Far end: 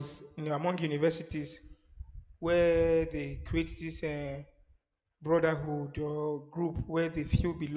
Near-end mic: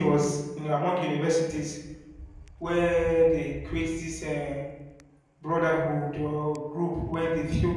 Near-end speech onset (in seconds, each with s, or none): none